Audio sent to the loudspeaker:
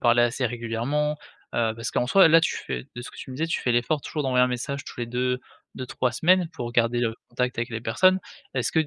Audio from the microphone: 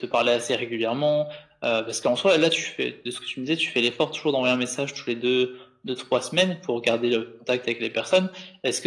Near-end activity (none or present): none